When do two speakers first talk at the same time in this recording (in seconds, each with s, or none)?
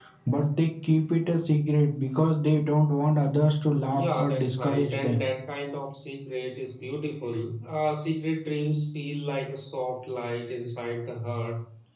3.9 s